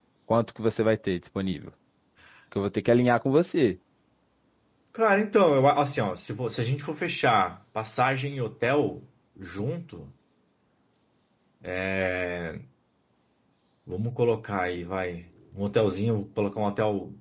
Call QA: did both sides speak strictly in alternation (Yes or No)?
Yes